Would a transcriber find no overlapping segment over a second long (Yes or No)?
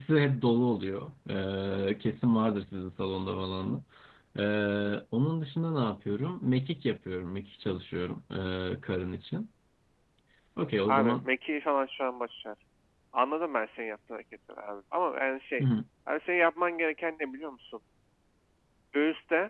Yes